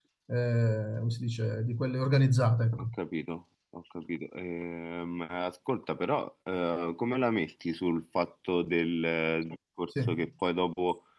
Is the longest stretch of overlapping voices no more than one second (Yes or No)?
Yes